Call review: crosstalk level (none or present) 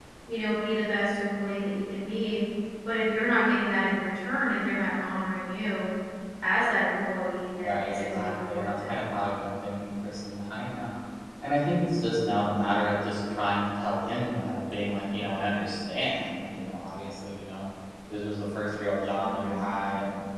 present